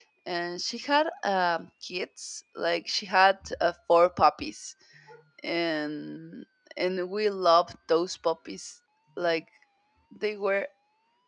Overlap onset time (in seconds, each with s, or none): none